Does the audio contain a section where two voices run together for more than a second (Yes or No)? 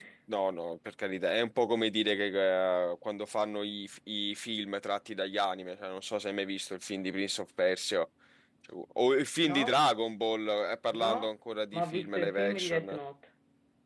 Yes